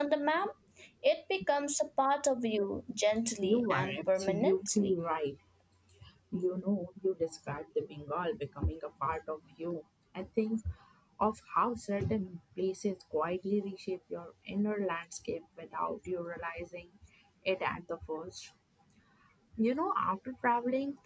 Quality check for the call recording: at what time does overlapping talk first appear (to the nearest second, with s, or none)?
3 s